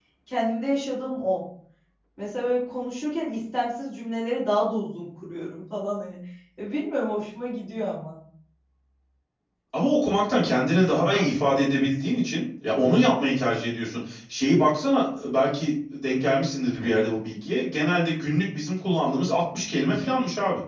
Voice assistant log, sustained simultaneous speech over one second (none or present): none